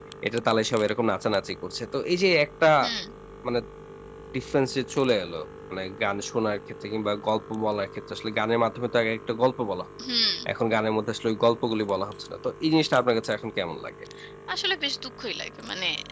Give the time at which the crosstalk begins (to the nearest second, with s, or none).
none